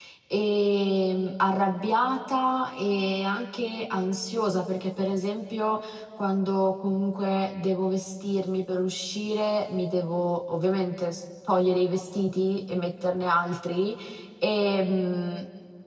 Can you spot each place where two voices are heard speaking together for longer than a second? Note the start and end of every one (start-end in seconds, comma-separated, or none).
none